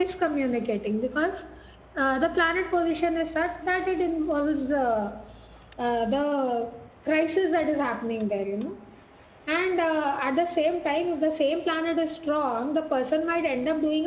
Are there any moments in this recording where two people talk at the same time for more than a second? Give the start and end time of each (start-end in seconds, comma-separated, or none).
none